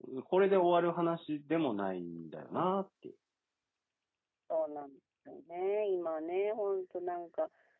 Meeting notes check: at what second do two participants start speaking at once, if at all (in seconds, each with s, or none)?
none